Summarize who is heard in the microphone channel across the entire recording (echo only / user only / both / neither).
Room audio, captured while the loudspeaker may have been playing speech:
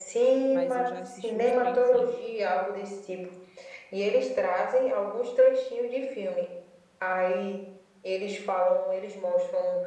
both